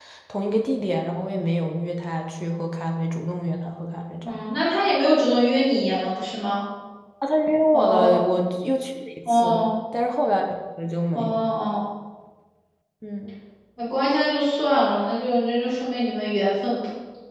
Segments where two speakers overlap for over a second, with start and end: none

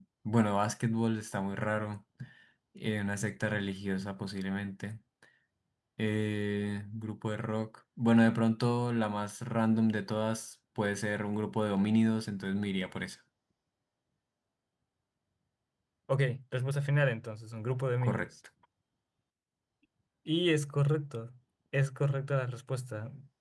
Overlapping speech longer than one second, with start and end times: none

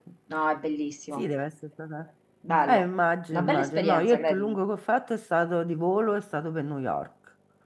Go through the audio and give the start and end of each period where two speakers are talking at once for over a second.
3.3-4.6

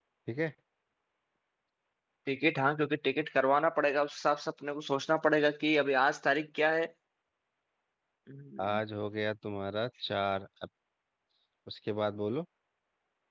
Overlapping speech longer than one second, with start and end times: none

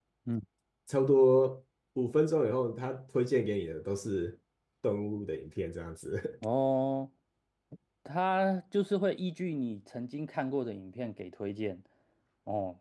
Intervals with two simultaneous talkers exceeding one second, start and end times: none

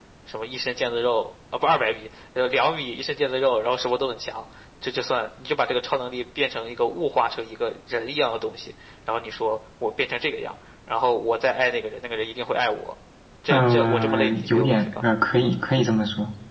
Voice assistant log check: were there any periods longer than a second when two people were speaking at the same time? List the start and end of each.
13.5-14.9

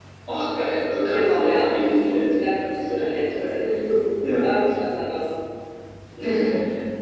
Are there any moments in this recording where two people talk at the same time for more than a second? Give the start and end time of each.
2.3-3.6

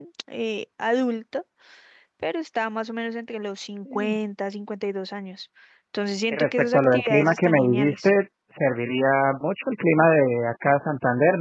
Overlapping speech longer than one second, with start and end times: 6.3-8.1

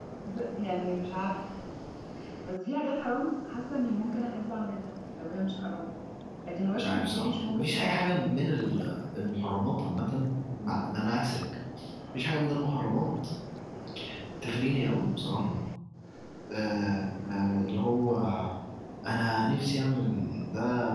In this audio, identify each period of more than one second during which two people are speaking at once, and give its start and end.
6.8-8.0

